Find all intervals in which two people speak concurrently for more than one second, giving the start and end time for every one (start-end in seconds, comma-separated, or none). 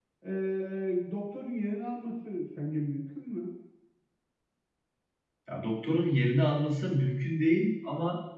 none